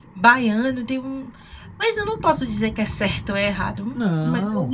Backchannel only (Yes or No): Yes